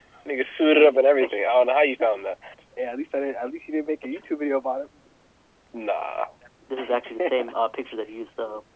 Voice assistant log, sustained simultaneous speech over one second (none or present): none